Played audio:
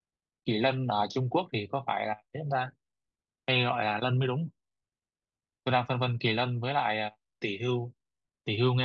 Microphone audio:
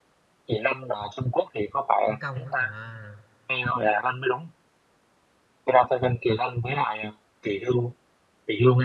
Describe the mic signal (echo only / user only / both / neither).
both